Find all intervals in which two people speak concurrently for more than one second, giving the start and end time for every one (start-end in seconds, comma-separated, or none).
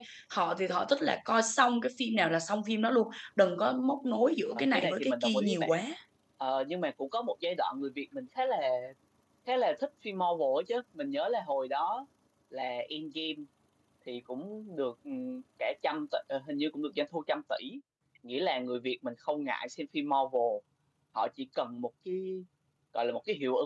4.5-5.8